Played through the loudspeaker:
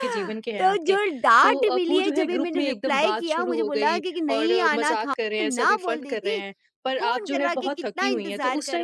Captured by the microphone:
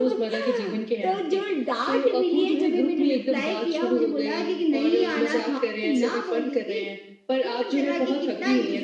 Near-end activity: none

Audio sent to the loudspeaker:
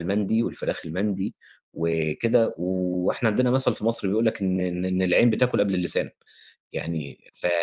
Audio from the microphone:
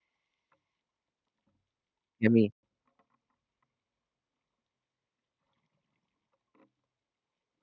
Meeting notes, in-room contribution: present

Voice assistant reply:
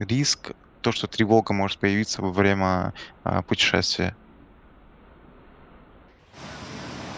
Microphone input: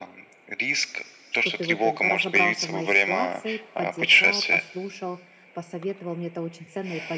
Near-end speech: present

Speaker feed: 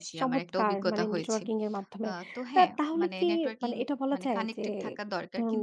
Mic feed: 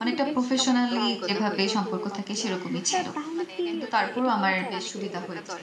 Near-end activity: present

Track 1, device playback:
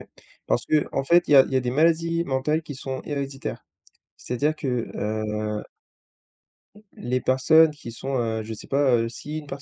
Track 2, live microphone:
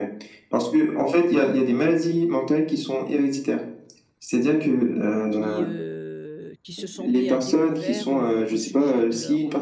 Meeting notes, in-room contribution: present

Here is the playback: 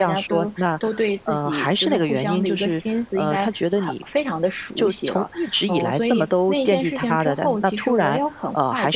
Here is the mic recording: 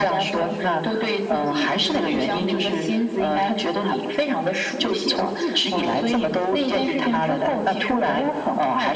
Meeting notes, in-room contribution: none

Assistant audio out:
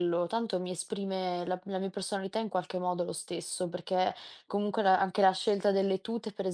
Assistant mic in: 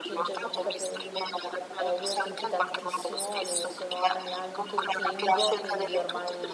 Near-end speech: present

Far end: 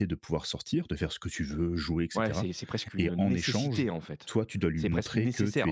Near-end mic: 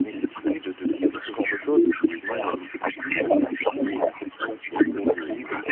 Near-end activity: present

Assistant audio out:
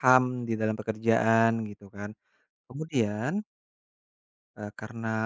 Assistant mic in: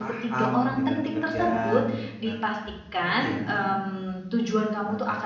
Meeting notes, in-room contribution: present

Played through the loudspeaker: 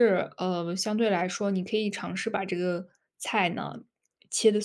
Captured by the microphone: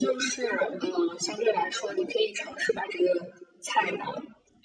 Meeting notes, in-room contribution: none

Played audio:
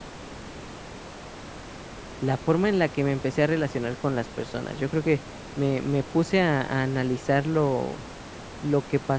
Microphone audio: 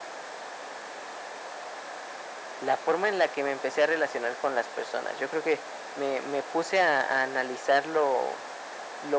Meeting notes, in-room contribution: none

